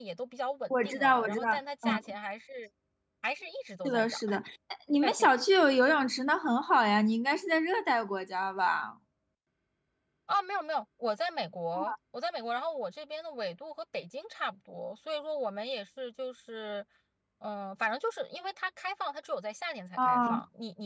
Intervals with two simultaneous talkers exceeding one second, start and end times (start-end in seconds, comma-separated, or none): 0.7-2.0